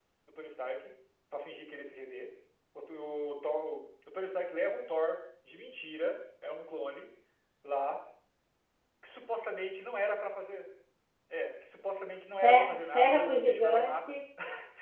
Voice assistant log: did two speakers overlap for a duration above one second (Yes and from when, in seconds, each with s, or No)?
Yes, from 12.4 s